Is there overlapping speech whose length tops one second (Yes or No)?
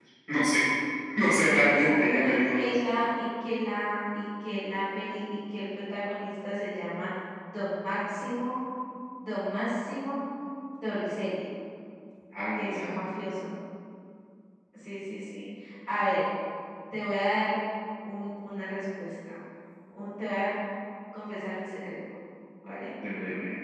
Yes